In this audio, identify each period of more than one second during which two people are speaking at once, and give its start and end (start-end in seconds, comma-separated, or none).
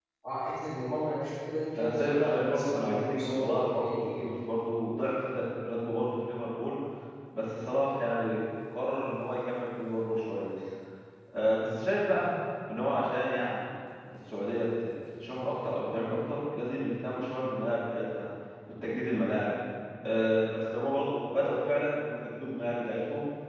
1.8-4.3